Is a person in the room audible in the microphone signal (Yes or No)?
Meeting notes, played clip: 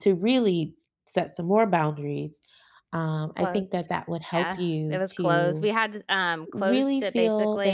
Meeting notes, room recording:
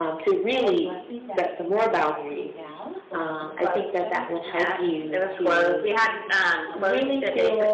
Yes